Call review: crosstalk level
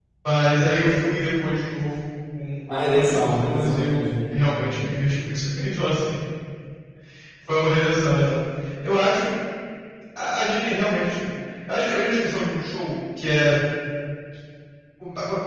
present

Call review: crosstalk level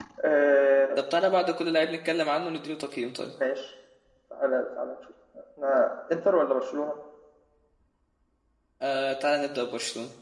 none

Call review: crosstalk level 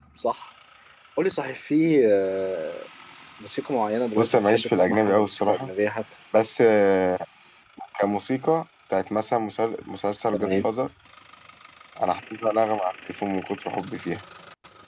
present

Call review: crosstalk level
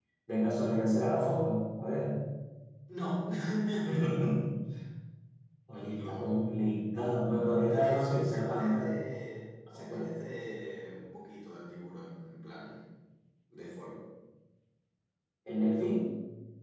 present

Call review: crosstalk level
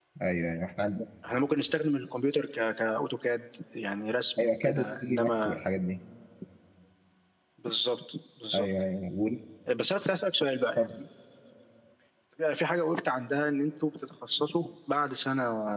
present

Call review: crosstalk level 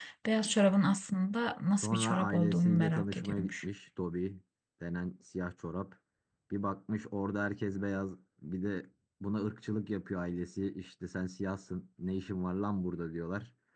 present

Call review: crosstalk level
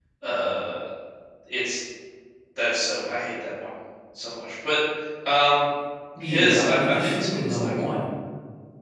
present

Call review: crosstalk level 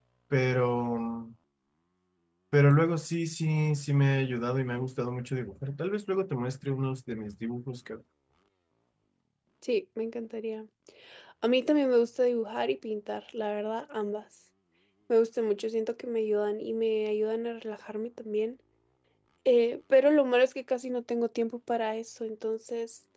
none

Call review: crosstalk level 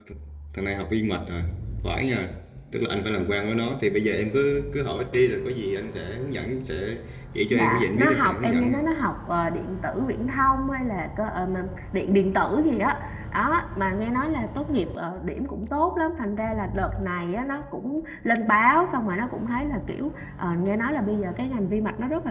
present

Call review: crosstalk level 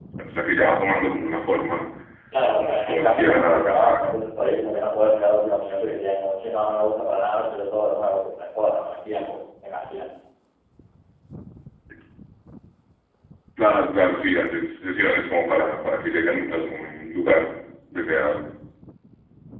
present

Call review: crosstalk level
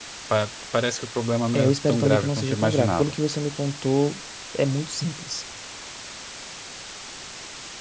present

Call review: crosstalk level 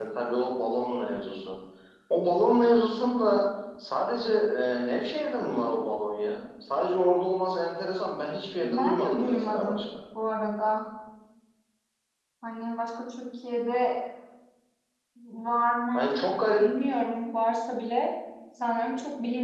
present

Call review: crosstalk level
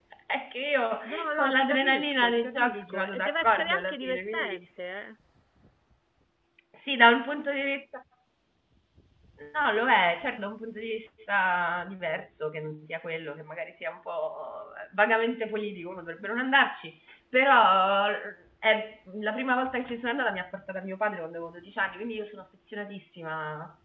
present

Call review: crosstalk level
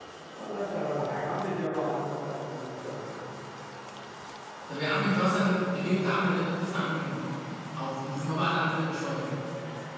none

